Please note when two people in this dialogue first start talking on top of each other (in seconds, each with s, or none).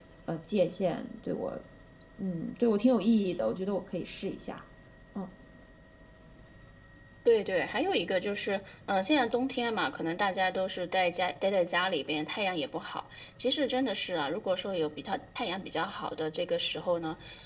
none